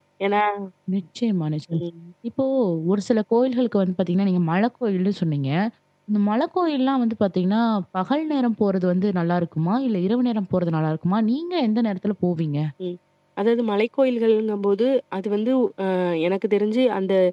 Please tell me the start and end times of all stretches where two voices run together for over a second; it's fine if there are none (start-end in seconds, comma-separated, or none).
none